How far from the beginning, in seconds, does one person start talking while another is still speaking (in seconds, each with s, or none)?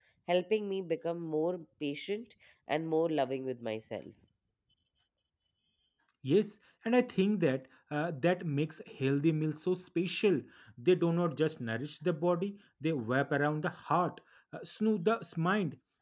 none